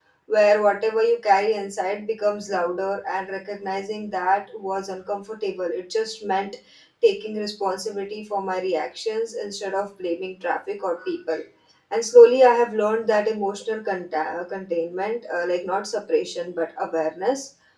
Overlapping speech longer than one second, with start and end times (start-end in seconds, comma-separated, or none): none